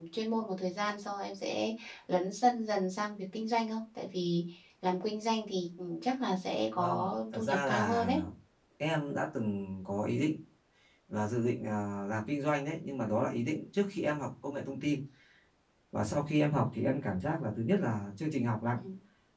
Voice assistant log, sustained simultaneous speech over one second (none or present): present